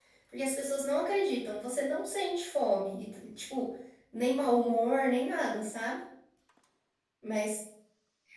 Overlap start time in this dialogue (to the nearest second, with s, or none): none